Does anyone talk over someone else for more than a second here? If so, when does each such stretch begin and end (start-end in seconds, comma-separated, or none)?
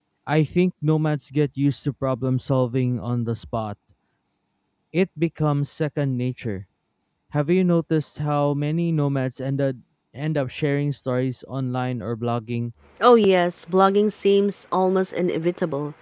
none